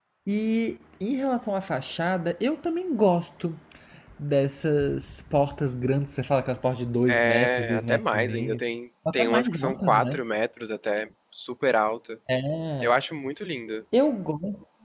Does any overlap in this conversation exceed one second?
Yes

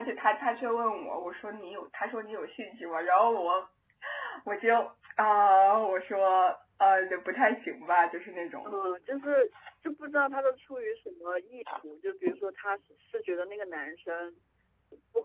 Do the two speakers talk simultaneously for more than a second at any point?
No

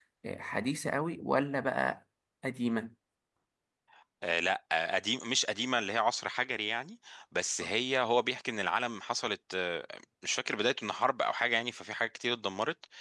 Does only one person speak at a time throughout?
Yes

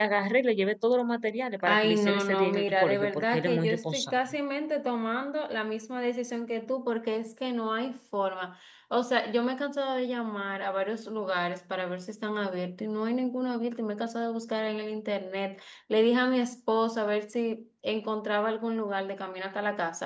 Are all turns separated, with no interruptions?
No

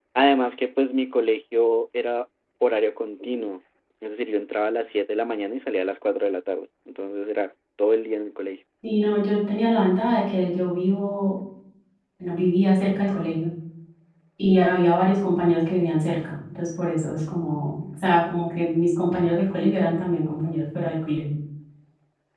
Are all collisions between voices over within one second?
Yes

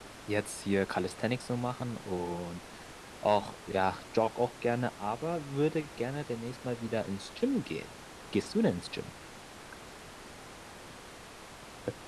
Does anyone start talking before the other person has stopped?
No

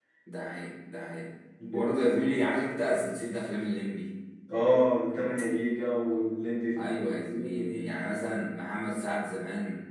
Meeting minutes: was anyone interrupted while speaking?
Yes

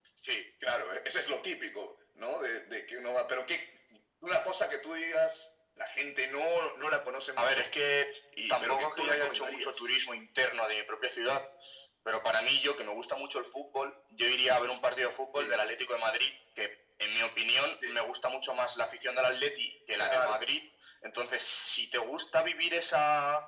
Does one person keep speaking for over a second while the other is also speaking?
Yes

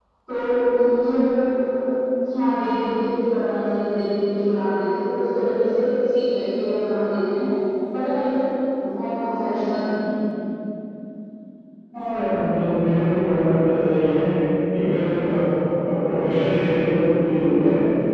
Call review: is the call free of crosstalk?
Yes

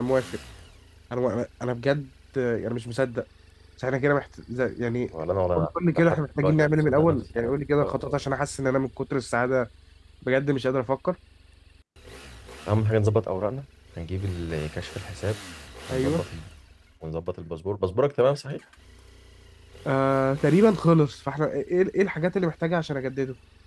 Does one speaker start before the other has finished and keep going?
Yes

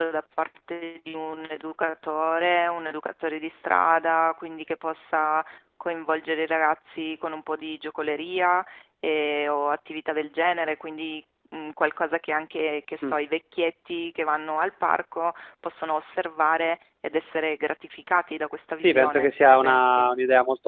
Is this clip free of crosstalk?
No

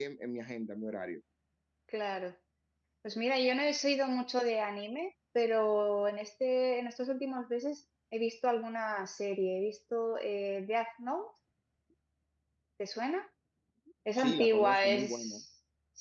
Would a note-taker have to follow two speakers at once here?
Yes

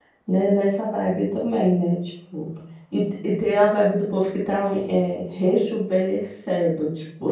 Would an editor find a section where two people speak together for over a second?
No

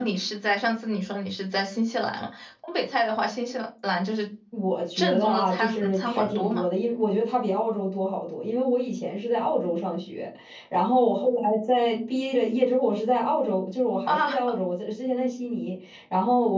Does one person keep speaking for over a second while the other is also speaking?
Yes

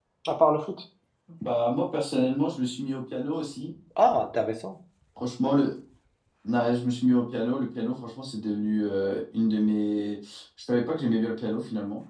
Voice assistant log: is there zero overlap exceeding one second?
Yes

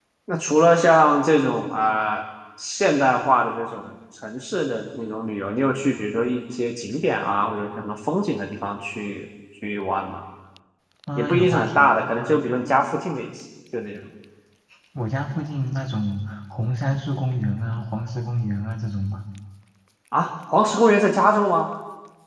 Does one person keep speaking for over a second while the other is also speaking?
Yes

